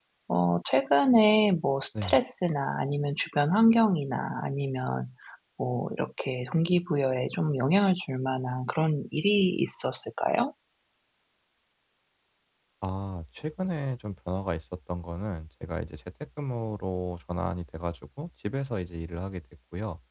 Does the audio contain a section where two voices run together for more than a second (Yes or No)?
No